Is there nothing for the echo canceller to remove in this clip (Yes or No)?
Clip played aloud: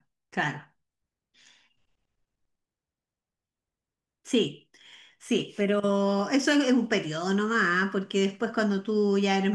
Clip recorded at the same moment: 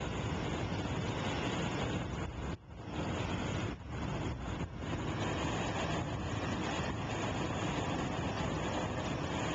Yes